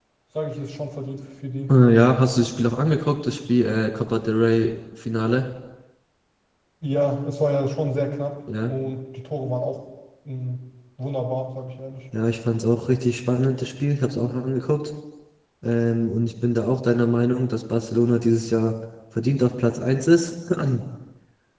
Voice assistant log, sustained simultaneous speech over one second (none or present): none